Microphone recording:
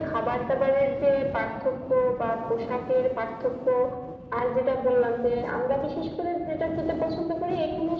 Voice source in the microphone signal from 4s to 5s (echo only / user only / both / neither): echo only